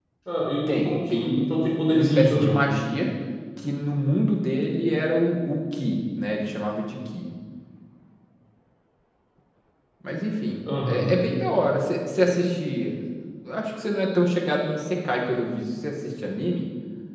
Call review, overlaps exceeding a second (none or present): present